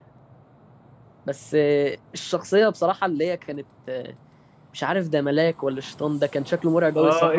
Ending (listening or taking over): taking over